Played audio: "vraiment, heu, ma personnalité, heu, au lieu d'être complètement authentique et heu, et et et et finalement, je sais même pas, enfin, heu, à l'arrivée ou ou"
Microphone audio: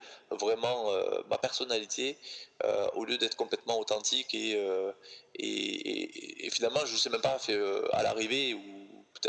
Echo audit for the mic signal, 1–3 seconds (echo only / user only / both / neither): echo only